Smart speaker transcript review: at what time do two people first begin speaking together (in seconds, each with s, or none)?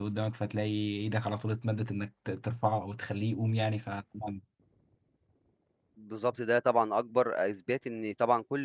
none